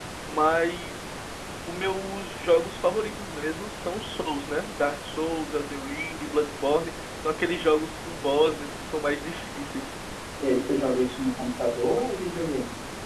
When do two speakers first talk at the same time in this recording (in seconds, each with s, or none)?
none